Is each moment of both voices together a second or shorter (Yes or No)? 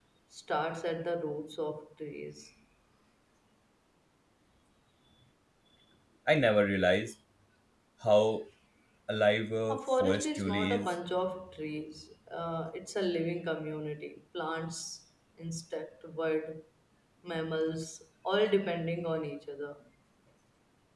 No